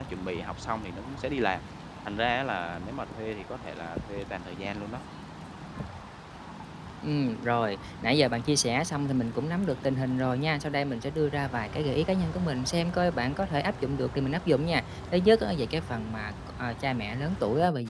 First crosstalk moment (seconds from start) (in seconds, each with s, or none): none